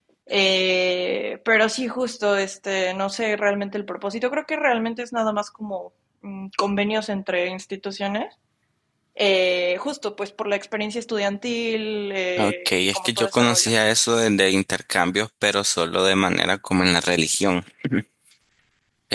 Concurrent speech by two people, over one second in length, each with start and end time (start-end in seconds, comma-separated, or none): 12.4-13.7